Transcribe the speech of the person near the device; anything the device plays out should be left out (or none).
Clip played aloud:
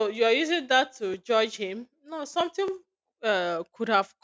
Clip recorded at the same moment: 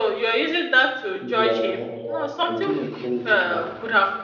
Yeah, yeah, I give him credit for that.